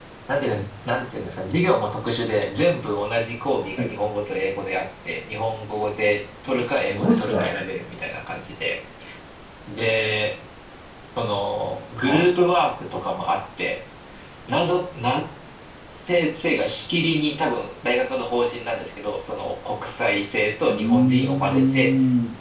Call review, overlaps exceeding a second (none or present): present